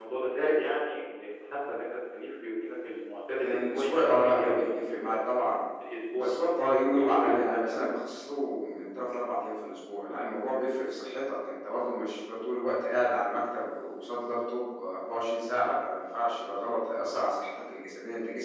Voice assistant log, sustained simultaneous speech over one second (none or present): present